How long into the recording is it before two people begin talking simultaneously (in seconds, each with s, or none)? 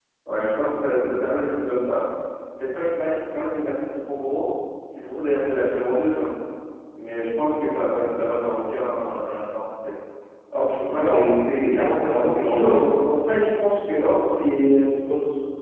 11.0 s